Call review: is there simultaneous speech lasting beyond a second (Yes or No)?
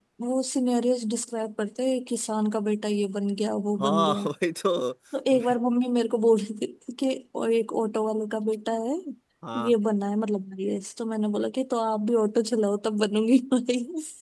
No